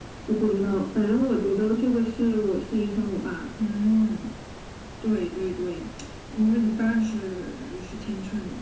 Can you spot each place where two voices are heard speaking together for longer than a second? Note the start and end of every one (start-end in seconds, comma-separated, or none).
none